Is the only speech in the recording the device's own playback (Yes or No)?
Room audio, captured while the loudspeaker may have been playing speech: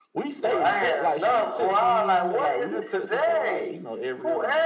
Yes